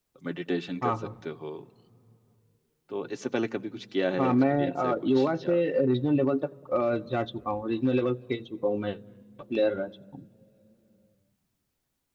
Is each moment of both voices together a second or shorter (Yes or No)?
No